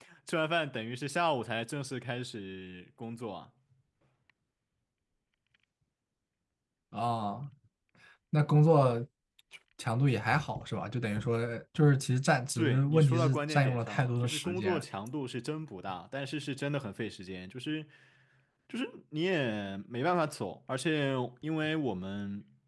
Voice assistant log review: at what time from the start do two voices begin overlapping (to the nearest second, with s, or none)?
13 s